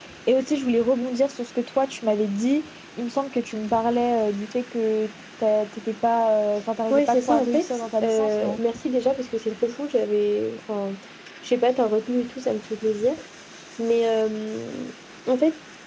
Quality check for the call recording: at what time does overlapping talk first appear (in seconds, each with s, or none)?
6.9 s